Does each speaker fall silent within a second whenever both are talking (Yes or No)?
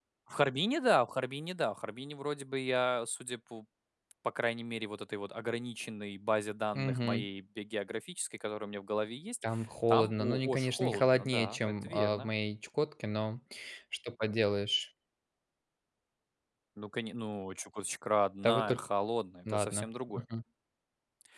No